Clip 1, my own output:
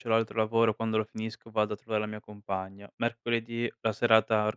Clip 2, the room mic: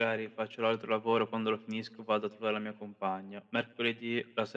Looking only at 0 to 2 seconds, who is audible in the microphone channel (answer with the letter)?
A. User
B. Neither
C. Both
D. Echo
D